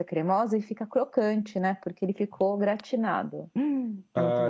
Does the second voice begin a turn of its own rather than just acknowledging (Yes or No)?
Yes